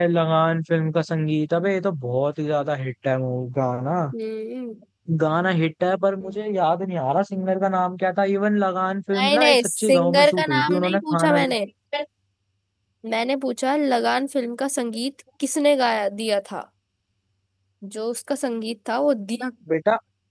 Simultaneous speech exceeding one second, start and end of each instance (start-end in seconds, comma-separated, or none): 9.2-11.4